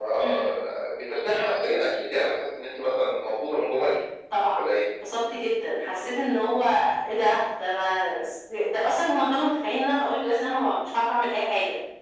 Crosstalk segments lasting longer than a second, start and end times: none

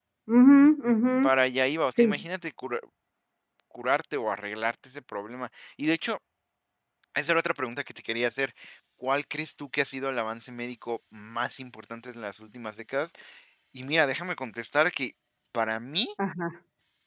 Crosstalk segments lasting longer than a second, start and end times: none

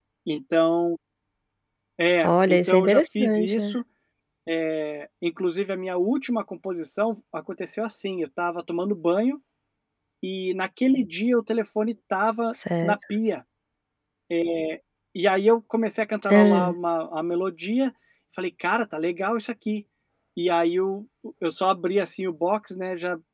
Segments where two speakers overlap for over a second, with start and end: 2.2-3.8

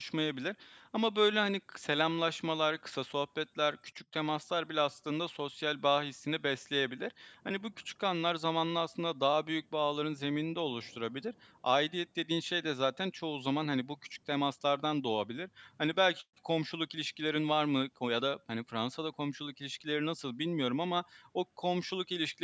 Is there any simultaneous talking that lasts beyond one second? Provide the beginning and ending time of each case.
none

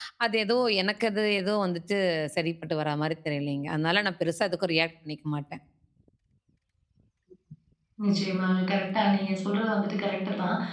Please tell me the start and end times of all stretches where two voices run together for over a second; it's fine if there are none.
none

